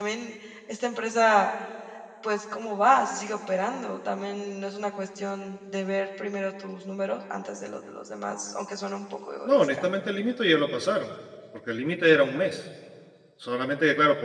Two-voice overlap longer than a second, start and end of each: none

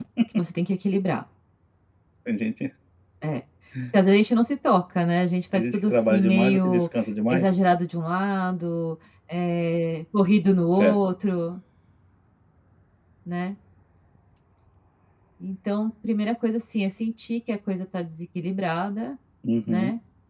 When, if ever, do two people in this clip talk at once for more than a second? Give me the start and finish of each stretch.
5.5-6.9

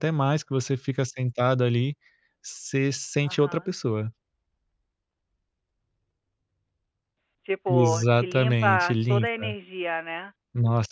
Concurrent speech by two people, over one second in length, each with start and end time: 7.7-9.6

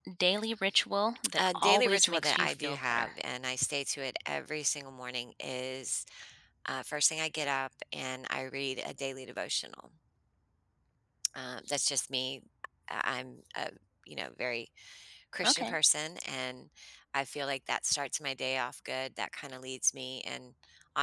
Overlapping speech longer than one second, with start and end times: 1.4-3.1

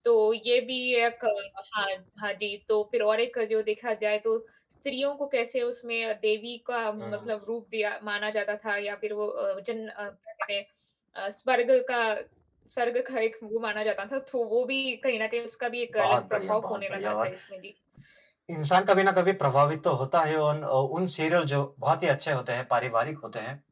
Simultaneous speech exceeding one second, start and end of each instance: 16.0-17.3

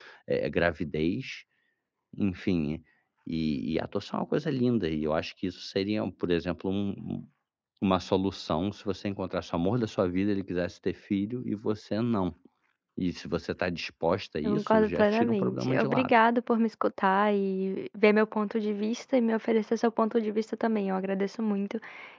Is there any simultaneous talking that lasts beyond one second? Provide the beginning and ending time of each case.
14.4-16.1

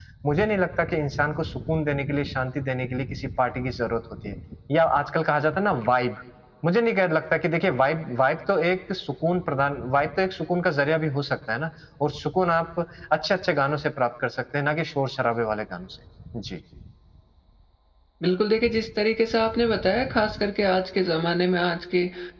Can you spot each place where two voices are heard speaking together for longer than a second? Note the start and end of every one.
none

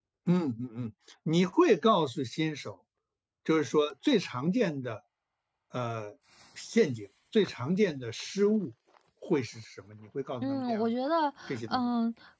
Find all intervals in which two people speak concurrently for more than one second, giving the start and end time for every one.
none

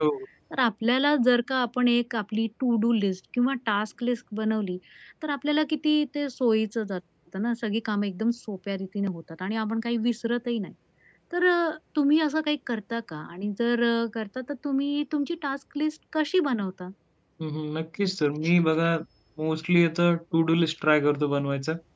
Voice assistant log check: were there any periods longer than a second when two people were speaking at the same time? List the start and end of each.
none

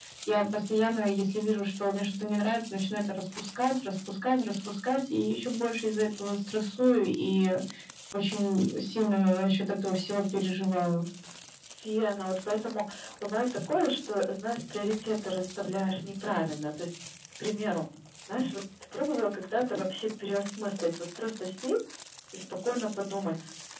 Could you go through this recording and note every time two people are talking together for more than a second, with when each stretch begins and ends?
none

